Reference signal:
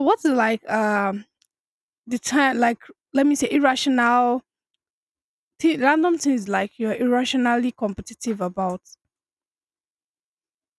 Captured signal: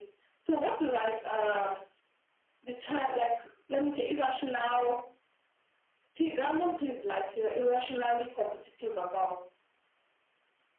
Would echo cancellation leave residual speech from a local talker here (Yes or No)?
No